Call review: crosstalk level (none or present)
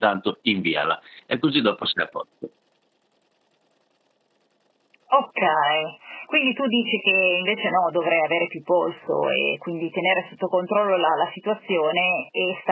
none